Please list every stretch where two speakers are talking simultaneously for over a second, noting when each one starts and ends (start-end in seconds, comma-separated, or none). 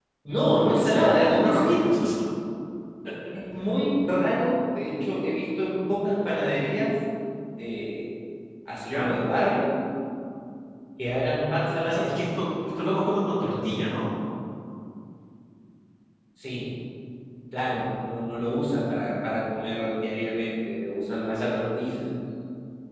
0.5-1.8